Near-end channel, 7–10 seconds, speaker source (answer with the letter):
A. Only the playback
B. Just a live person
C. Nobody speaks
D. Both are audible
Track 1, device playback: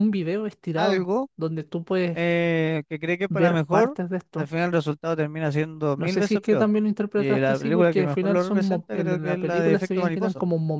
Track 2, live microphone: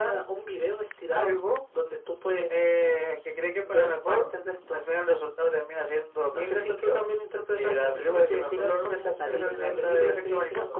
D